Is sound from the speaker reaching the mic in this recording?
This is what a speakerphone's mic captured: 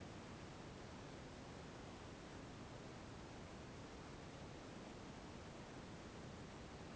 No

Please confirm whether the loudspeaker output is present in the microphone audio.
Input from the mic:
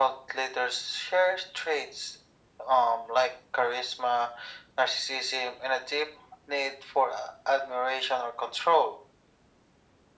Yes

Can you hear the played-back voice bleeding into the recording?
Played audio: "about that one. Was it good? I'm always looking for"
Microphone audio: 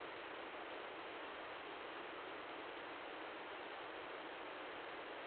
No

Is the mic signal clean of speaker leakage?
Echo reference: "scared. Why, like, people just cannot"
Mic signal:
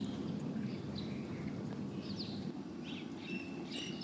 Yes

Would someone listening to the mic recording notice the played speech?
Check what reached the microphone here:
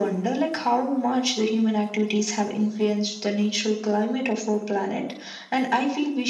Yes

